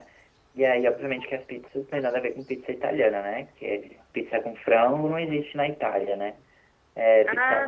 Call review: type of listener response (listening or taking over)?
listening